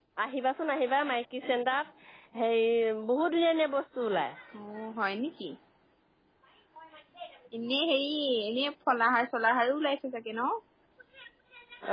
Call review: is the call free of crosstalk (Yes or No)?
Yes